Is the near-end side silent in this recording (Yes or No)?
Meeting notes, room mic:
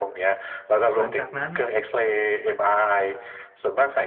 No